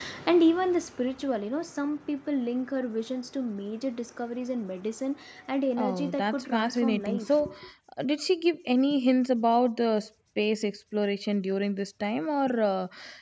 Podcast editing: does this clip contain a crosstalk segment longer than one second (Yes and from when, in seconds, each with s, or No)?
Yes, from 5.8 s